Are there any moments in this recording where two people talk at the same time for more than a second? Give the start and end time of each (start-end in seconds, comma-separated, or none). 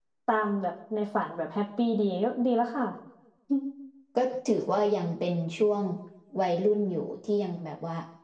none